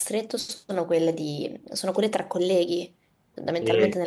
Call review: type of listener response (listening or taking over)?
listening